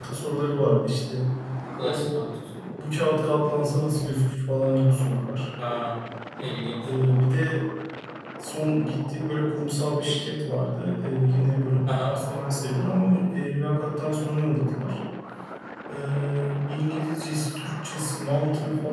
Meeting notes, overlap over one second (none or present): none